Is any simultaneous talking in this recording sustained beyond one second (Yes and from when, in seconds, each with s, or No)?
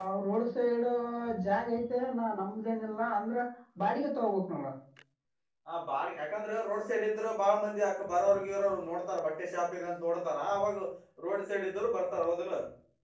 No